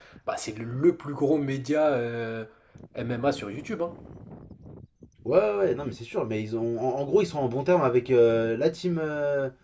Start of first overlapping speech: none

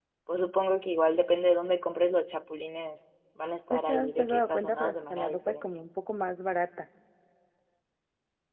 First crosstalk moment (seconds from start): 3.7 s

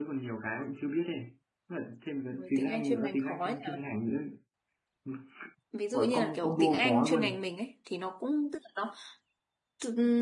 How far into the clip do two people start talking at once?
2.3 s

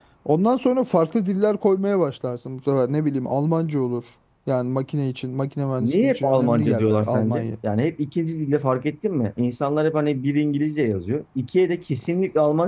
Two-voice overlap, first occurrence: 5.8 s

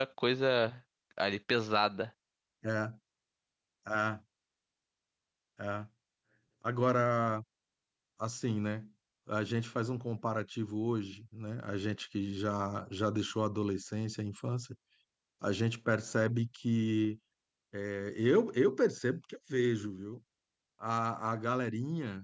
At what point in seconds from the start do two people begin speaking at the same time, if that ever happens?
none

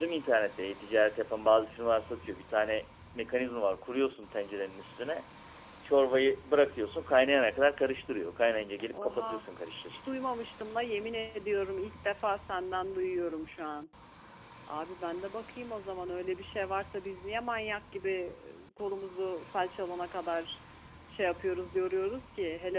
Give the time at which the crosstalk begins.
8.9 s

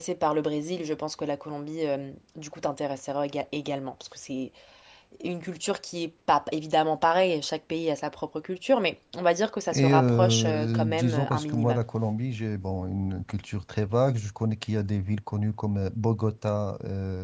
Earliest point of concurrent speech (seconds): 9.7 s

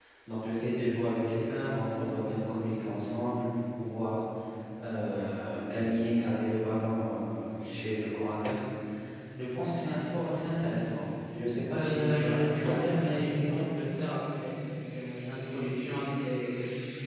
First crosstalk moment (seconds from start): 11.7 s

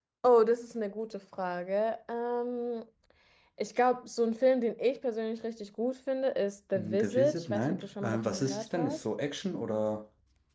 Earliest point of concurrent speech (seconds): 6.7 s

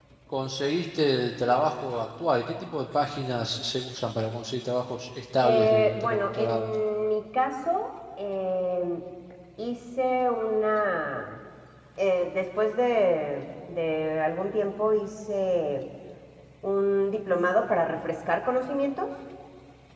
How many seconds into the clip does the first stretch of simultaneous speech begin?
5.4 s

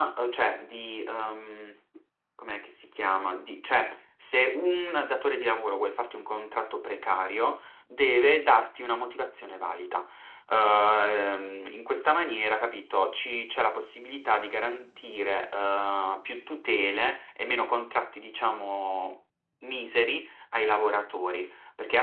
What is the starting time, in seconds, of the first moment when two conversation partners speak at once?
none

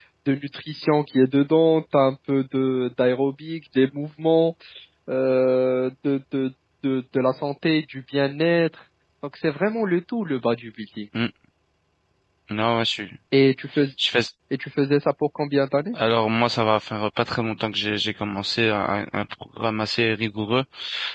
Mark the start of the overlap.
none

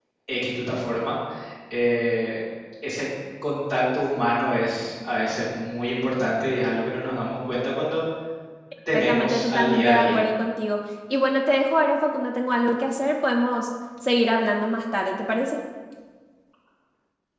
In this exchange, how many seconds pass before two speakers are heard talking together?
8.9 s

